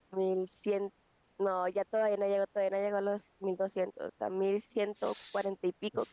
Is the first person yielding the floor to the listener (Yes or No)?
Yes